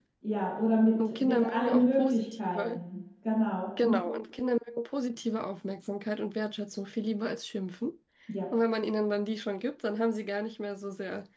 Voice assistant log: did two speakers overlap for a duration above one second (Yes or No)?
Yes